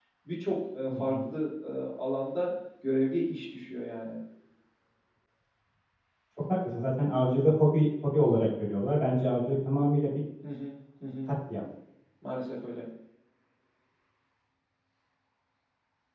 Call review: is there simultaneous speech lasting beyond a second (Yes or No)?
No